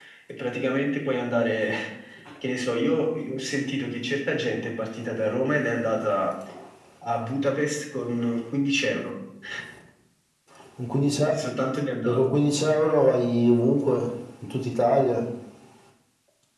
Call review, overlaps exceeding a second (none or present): none